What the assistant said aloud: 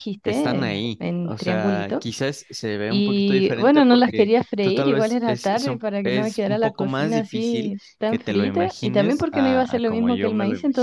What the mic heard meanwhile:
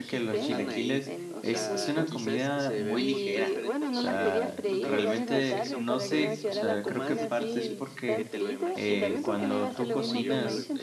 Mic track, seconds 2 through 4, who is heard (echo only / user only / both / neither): both